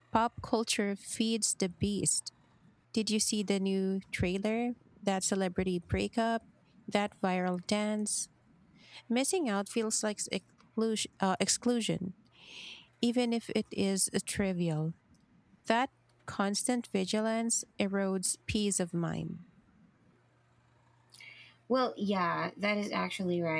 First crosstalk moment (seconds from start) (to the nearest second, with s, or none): none